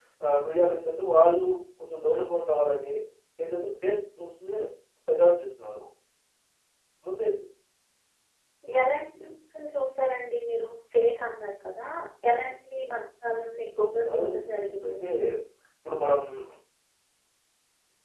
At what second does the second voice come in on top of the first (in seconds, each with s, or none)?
13.8 s